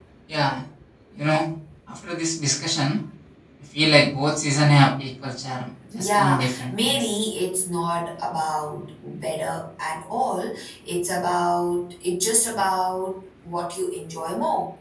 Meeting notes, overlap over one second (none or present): present